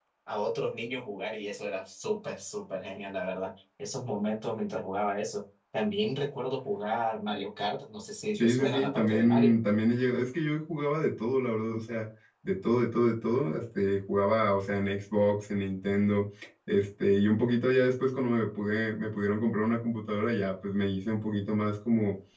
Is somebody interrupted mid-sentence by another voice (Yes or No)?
Yes